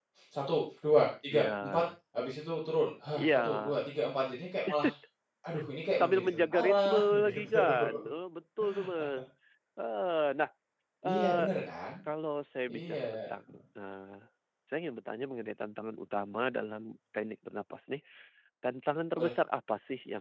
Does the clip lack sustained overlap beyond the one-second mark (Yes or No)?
No